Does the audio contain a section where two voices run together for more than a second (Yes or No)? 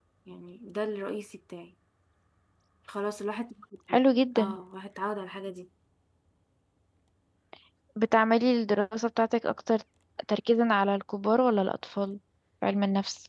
No